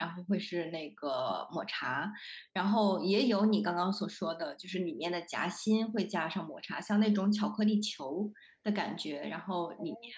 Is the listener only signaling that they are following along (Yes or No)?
Yes